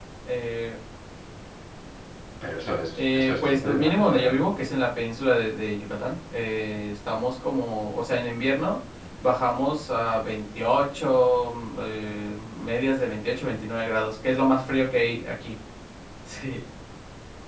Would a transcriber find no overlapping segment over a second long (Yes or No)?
No